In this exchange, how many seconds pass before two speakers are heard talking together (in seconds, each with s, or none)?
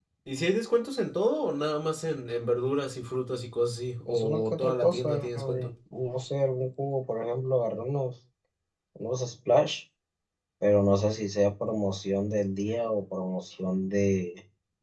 4.1 s